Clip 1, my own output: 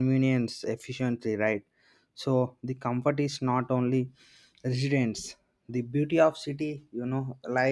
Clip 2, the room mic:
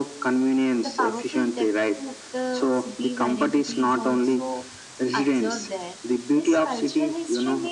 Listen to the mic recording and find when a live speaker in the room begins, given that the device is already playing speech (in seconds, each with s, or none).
0.8 s